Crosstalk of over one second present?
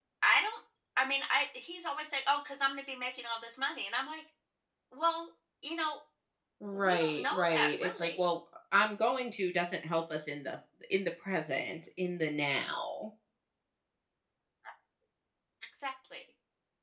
Yes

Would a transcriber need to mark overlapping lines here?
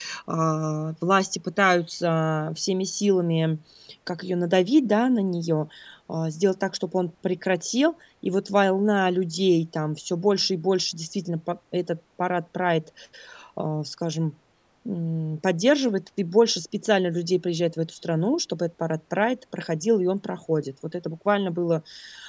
No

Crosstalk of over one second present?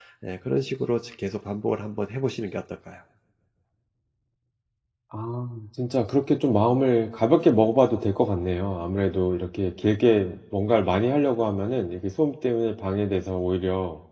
No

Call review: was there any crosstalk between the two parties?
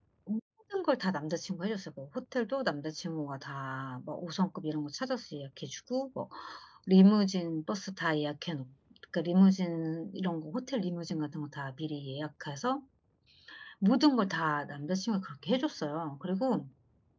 No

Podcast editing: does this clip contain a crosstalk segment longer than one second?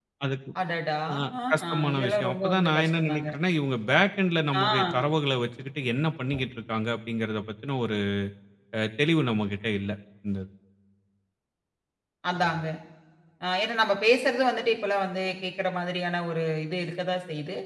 Yes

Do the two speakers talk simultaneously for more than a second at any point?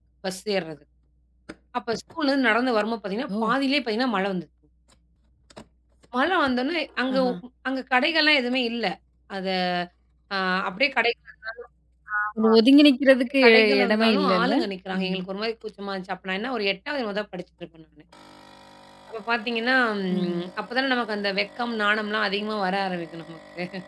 Yes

